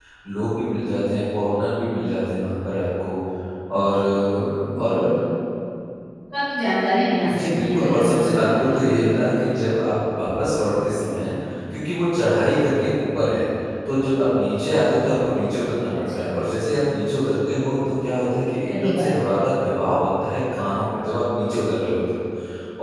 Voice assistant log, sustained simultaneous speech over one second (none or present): present